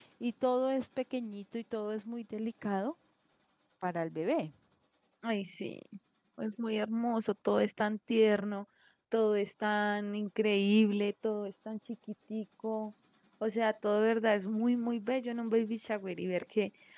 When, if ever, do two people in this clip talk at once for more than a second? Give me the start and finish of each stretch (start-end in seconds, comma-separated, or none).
none